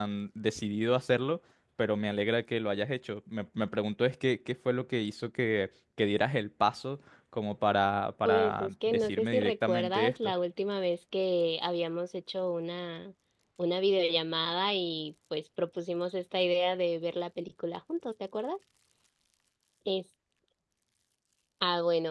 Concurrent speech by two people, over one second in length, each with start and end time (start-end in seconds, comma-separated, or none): 8.2-10.3